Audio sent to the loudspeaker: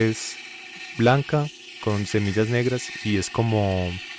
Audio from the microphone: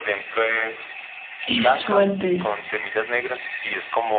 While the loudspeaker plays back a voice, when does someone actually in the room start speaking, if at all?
1.4 s

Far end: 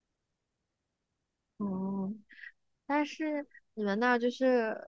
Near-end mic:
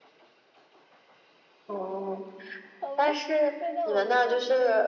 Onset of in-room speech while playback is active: 2.8 s

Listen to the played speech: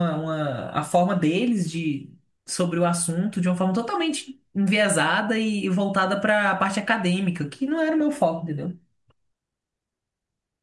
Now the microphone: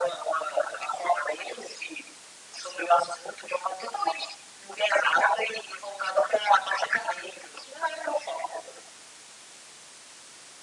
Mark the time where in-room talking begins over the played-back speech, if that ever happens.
none

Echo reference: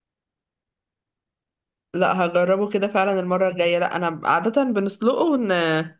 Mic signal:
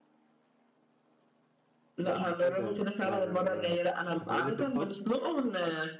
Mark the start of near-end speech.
2.0 s

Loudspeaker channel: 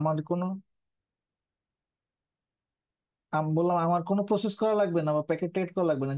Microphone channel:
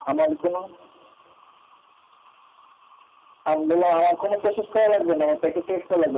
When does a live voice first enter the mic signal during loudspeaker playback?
none

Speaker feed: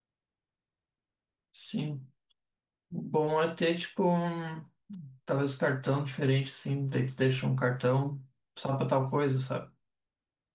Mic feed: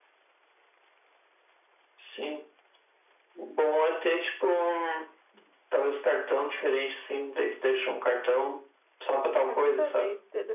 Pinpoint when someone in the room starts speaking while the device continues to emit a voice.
9.4 s

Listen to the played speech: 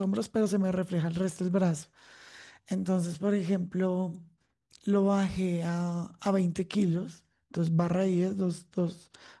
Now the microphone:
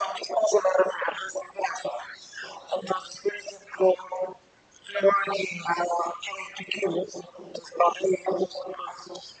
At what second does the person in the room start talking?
none

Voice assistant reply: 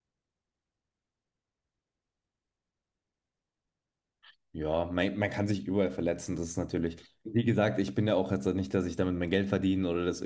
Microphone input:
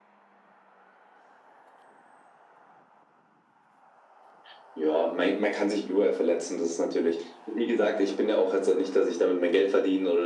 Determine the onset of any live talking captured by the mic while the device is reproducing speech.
none

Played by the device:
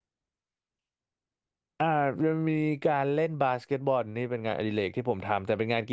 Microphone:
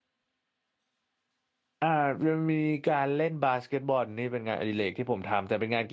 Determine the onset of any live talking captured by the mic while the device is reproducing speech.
none

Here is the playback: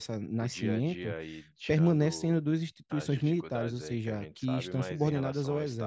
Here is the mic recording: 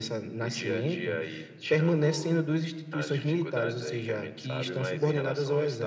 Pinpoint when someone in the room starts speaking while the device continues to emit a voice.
none

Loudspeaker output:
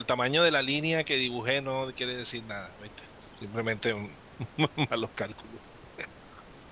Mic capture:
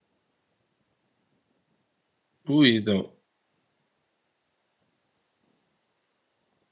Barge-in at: 2.5 s

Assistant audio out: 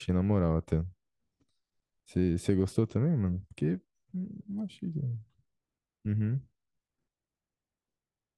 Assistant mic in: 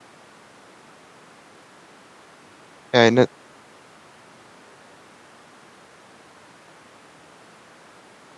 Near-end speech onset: 2.9 s

